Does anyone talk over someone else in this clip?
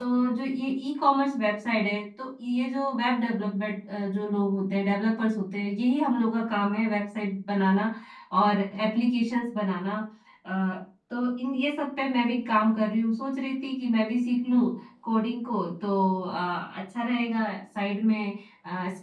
No

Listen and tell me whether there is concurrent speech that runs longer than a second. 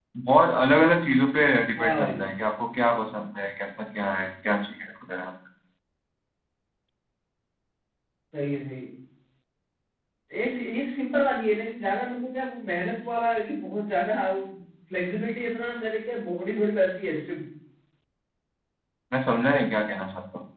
No

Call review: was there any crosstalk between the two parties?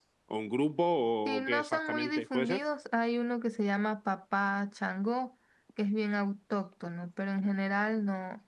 Yes, from 1.2 s

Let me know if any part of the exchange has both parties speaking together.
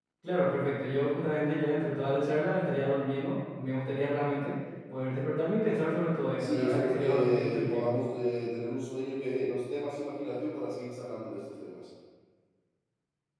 Yes, from 6.4 s

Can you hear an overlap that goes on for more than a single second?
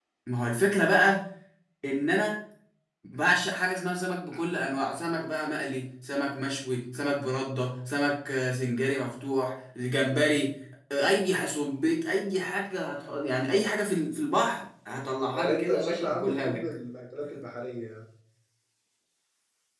Yes, from 15.3 s

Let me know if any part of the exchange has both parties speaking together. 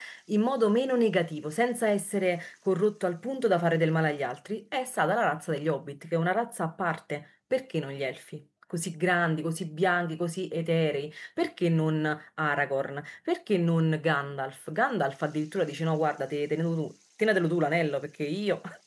No

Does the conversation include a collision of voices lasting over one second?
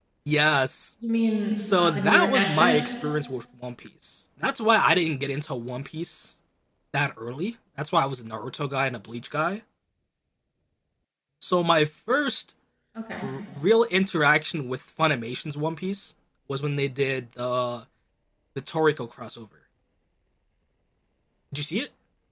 Yes, from 1.6 s

